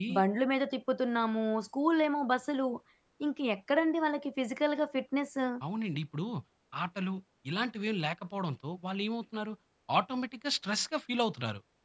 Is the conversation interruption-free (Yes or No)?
Yes